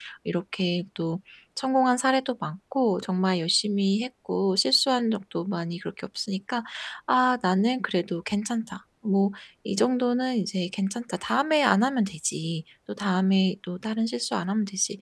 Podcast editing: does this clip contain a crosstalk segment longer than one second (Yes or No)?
No